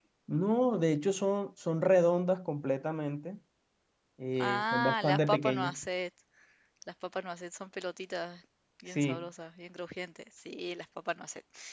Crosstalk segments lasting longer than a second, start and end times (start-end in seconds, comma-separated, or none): 4.4-5.7